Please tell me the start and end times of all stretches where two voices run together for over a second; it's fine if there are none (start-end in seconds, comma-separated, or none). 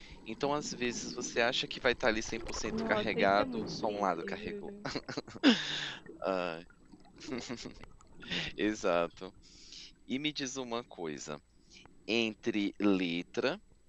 2.7-4.7